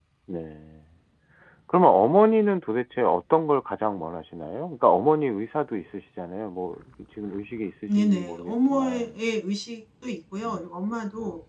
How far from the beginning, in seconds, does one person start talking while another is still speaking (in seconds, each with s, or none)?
7.9 s